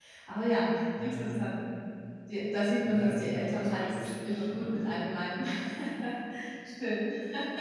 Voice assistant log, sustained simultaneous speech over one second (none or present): present